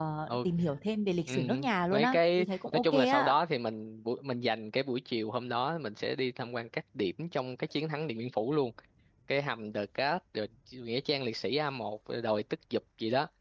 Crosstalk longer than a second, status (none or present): present